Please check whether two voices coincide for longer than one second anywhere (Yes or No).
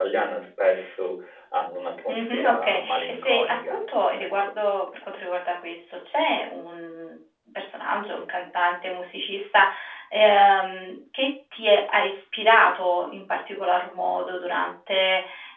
Yes